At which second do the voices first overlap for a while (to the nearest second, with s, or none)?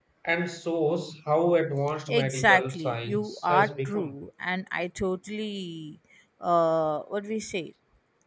2 s